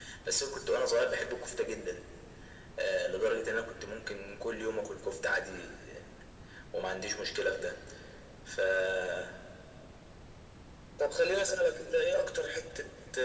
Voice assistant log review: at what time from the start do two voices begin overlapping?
none

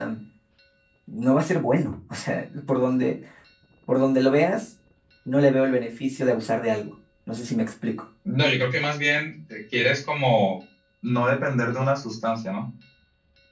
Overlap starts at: none

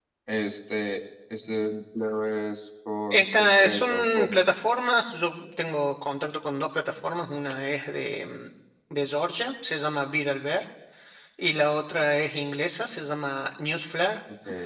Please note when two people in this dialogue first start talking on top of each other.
3.1 s

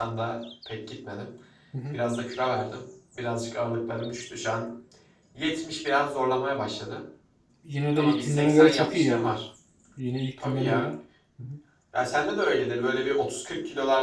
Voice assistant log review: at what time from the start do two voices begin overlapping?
7.9 s

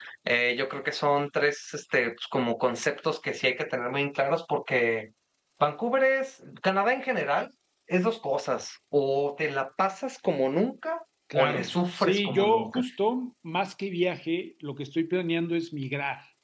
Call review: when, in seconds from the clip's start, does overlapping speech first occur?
11.3 s

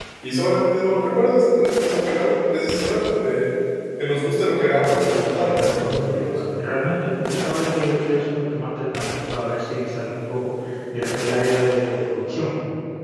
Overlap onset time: 4.8 s

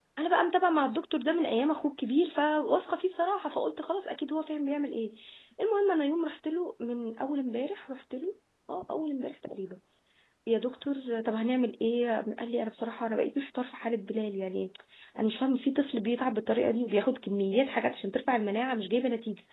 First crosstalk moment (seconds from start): none

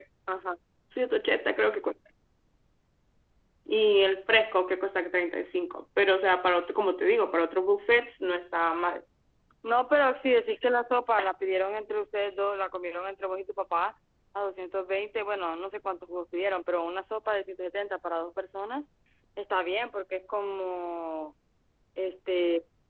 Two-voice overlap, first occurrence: none

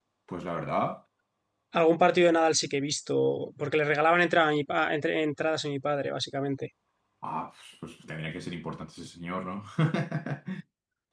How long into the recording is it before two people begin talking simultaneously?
none

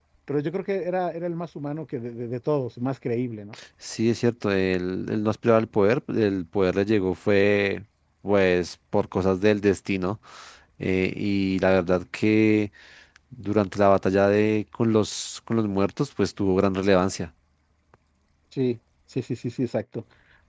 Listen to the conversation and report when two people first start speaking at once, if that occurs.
none

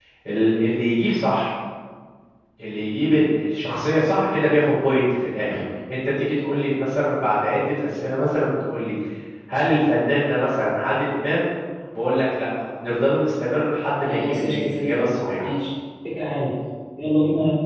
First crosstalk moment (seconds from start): 14.0 s

